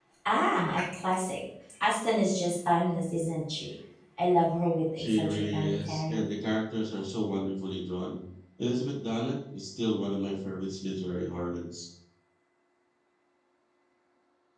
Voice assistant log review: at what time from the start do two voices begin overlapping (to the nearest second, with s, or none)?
5 s